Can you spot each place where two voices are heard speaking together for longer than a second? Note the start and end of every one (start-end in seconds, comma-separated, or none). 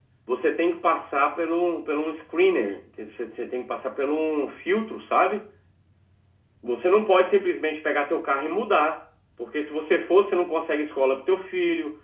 none